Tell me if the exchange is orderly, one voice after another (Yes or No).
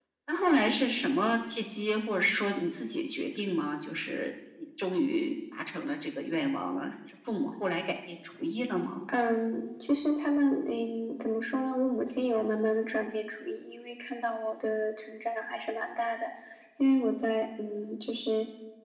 Yes